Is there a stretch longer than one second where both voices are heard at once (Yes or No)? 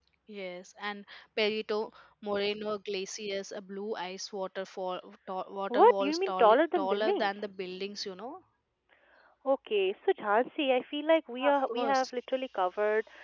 Yes